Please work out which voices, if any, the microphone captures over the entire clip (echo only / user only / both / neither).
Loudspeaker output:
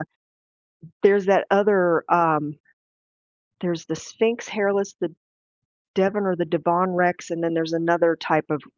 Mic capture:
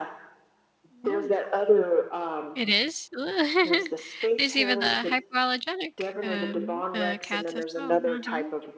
both